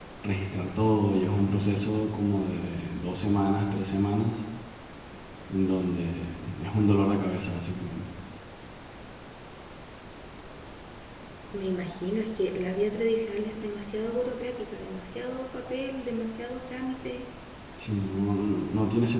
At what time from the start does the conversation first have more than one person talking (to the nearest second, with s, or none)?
none